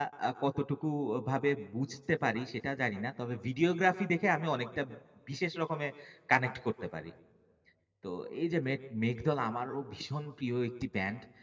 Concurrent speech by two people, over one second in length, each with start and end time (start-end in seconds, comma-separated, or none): none